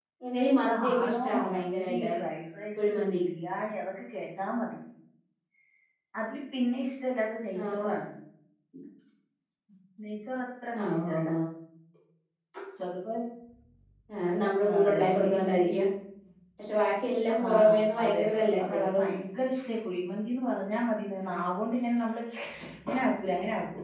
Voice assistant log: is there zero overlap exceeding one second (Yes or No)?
No